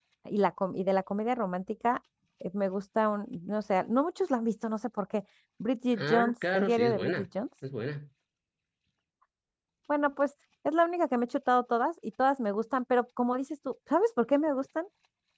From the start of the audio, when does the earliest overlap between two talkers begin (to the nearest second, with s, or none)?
6 s